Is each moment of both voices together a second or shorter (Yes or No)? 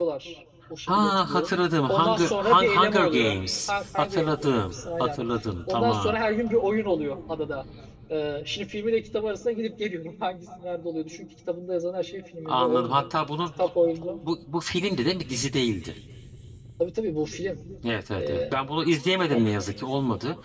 No